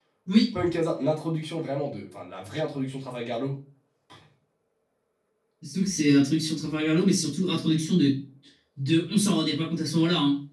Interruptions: none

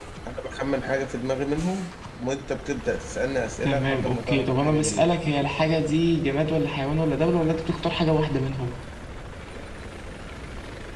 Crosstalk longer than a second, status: present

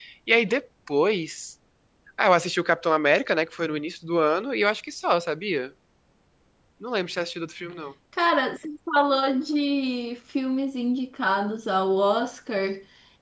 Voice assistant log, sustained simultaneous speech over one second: none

